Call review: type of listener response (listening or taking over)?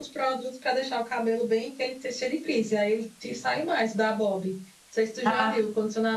listening